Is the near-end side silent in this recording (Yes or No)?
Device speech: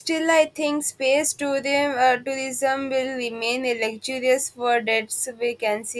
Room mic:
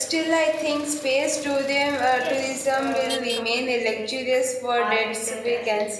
No